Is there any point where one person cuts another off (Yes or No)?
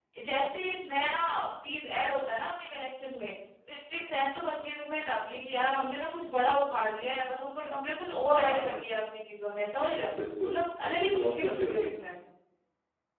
Yes